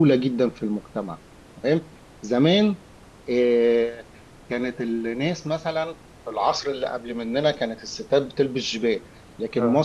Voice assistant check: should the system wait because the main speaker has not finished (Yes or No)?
Yes